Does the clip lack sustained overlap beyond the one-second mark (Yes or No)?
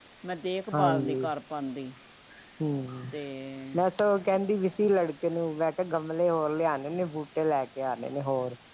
Yes